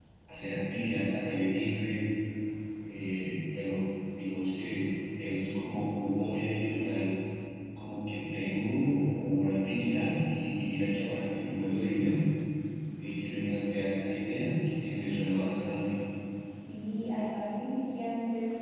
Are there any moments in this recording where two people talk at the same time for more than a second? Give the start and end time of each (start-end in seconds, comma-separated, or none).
none